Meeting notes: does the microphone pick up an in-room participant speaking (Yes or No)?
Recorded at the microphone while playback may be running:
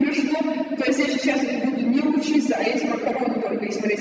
No